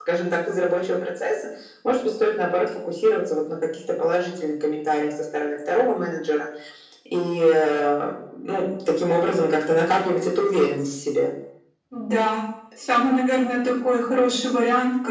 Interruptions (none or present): none